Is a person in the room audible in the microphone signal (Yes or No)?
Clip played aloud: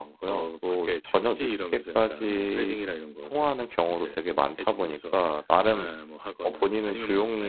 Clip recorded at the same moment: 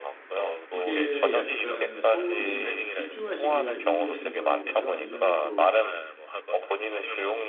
Yes